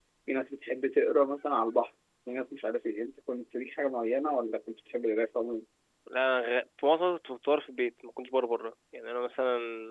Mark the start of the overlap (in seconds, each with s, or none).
none